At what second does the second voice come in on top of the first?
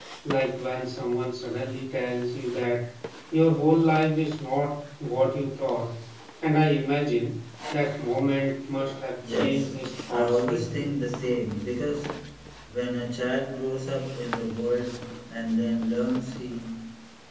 9.2 s

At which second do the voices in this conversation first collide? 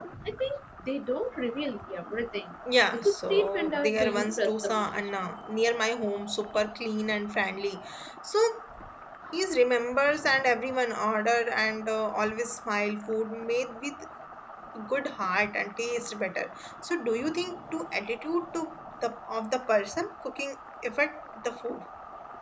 2.9 s

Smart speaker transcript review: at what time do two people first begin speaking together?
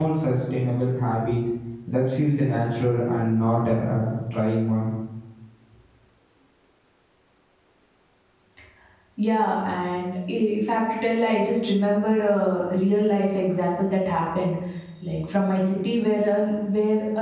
none

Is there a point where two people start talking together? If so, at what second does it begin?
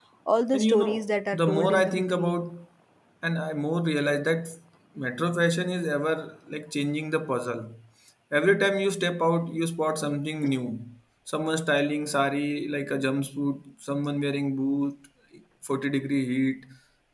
0.5 s

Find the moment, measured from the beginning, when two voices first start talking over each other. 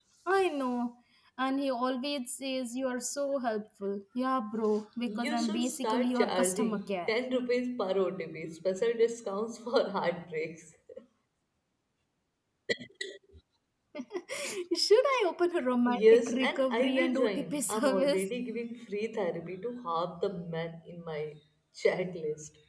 5.1 s

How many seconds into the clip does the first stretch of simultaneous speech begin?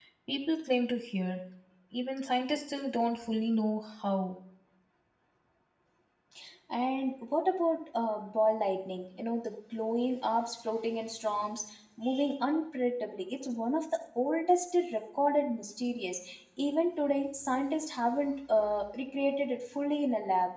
none

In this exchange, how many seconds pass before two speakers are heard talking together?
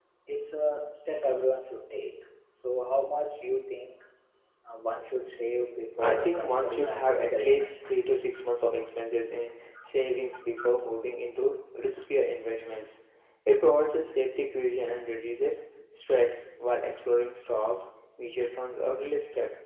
6.0 s

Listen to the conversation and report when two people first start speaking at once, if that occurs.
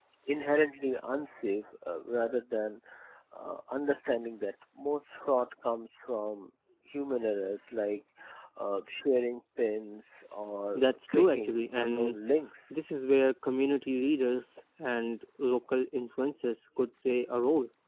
10.7 s

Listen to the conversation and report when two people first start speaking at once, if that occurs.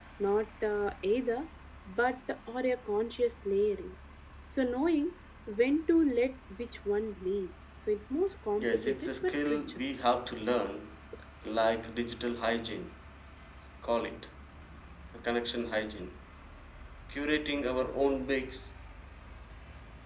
8.6 s

